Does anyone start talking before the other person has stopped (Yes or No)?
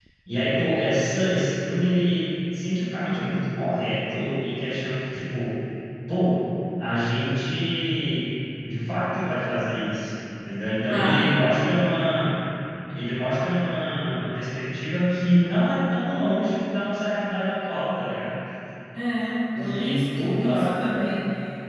Yes